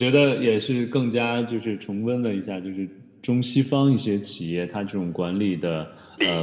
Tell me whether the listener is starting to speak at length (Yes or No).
No